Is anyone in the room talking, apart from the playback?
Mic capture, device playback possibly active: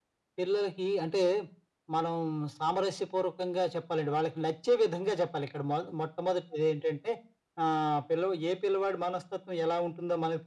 No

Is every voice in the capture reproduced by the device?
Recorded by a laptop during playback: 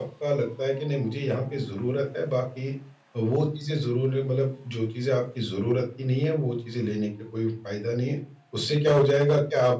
No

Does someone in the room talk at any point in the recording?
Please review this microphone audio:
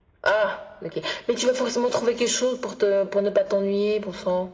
No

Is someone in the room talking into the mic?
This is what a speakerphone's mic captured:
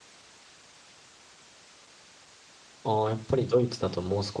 Yes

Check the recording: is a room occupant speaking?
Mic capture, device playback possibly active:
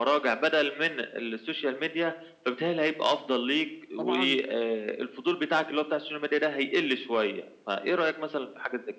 Yes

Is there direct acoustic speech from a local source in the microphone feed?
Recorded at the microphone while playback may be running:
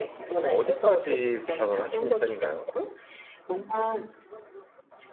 Yes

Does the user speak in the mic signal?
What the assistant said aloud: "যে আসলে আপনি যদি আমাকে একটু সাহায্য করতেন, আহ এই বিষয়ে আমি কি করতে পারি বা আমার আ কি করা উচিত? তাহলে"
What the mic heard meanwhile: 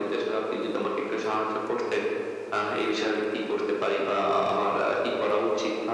No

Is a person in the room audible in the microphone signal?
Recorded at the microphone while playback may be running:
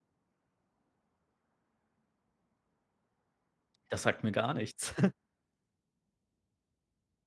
Yes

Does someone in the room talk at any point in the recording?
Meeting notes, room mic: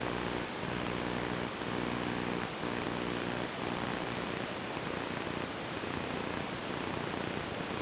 No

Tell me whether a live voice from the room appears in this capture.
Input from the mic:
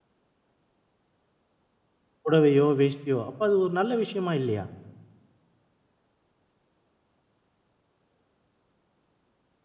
Yes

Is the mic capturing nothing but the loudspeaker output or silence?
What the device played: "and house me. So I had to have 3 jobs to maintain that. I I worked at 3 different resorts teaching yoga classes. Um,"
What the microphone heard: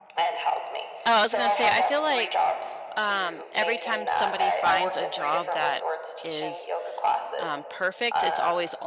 No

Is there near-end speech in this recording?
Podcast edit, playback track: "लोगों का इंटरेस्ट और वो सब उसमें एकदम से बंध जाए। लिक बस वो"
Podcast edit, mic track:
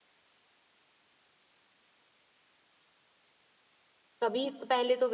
Yes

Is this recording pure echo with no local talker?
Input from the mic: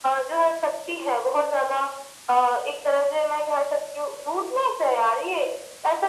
Yes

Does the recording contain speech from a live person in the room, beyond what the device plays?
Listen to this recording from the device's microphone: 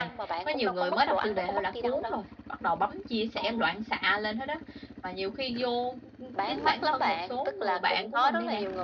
Yes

